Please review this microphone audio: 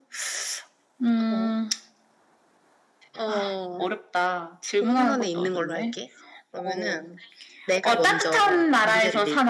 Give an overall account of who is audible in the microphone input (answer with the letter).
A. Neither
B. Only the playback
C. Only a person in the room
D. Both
B